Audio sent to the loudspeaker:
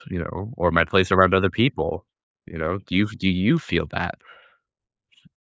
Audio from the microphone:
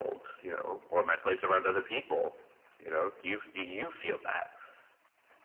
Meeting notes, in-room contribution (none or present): none